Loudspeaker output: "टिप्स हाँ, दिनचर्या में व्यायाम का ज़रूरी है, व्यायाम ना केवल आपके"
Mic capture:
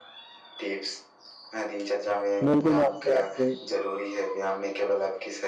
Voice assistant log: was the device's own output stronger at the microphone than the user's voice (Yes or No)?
No